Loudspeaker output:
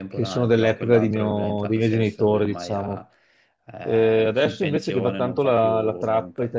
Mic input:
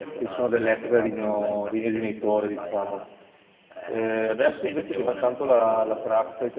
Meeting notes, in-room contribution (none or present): none